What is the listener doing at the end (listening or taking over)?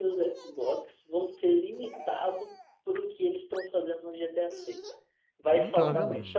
listening